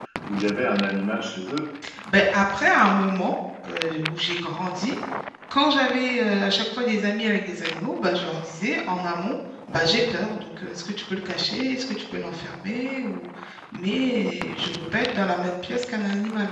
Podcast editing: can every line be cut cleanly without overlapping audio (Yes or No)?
Yes